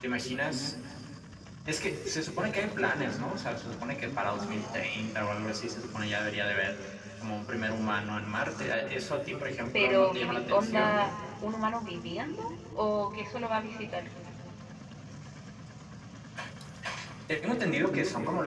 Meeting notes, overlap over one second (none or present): present